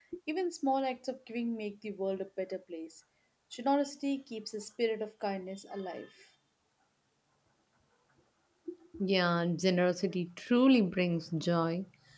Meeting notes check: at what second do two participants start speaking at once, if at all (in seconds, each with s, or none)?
none